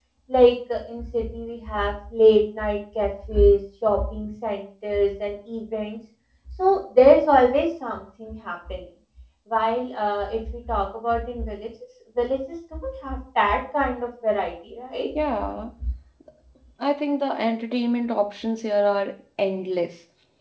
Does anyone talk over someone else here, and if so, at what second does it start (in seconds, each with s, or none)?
none